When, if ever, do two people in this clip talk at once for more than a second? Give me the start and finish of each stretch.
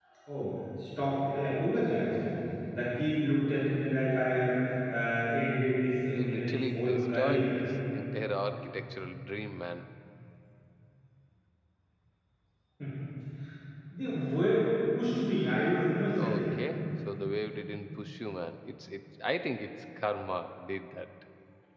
6.1-7.5

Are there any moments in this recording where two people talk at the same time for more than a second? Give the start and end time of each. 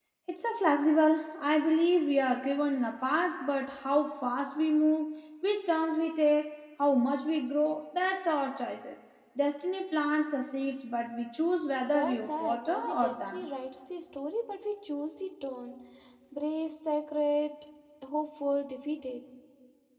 11.9-13.4

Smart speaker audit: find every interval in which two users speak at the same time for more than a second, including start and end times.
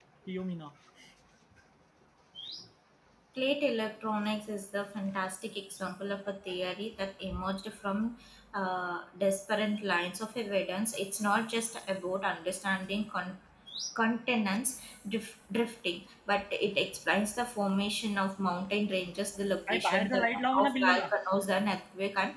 19.7-21.0

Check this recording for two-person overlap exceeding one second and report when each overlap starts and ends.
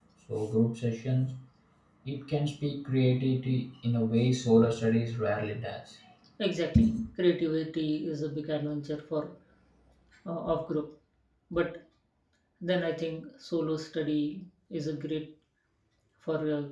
none

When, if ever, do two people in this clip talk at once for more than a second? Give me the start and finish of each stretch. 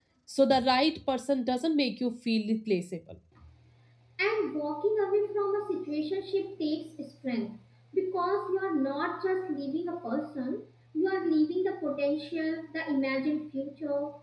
none

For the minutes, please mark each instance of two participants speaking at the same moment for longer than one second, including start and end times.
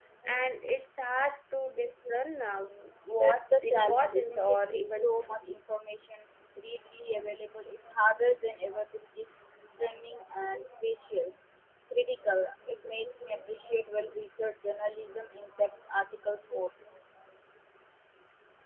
3.2-5.3

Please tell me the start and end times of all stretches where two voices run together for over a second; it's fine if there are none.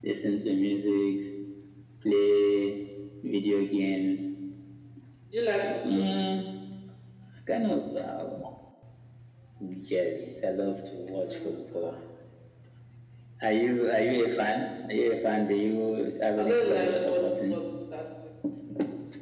16.4-17.6

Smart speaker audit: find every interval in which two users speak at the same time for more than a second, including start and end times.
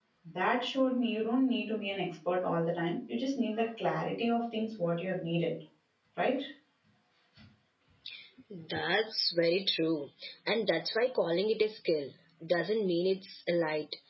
none

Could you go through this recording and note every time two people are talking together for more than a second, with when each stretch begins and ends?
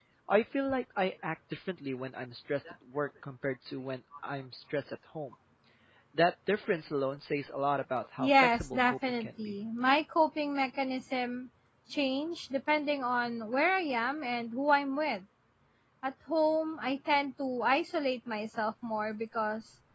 8.2-9.5

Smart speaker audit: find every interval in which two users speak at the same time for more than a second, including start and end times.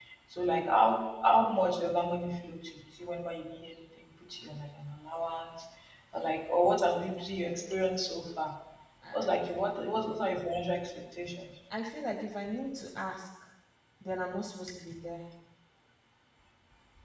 none

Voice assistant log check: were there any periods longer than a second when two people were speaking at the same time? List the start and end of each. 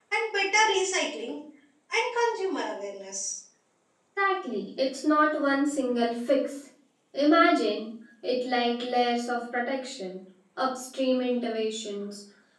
none

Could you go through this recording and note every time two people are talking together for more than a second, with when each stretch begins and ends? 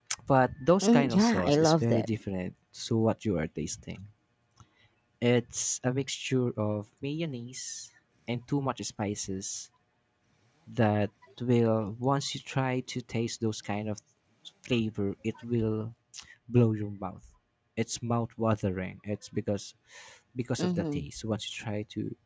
0.8-2.1

